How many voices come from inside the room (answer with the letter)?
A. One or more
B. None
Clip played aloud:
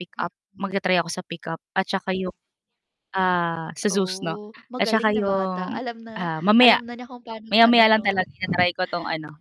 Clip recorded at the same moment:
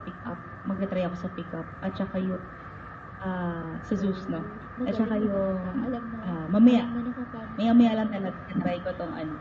B